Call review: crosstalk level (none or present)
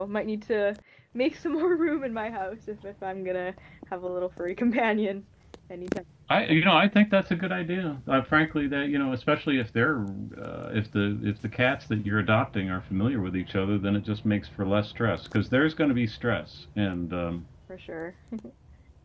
none